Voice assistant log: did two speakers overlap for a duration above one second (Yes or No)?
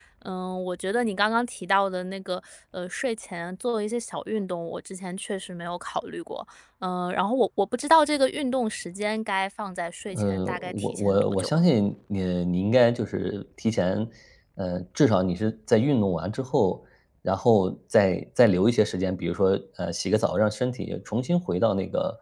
Yes